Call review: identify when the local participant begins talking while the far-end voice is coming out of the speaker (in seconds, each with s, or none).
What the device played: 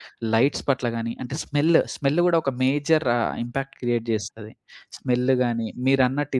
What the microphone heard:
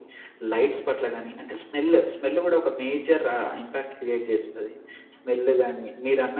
none